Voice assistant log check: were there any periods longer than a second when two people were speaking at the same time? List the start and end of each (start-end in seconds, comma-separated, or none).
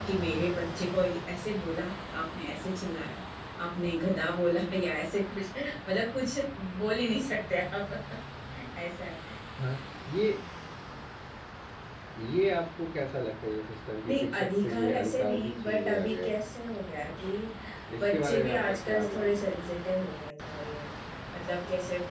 14.1-16.3, 18.0-19.5